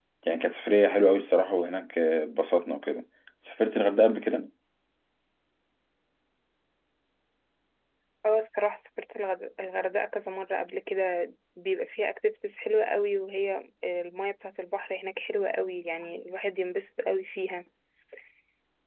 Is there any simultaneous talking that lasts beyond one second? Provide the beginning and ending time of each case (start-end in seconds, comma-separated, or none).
none